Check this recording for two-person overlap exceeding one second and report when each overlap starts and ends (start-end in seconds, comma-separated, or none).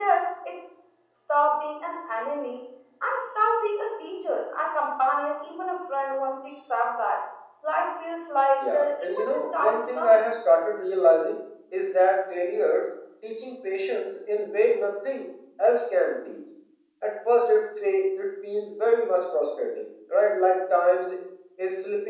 8.6-10.2